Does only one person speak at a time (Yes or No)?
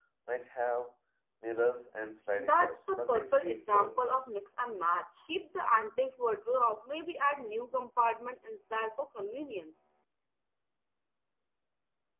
No